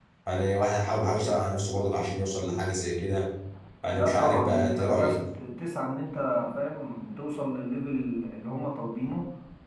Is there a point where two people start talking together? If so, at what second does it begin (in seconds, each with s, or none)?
3.9 s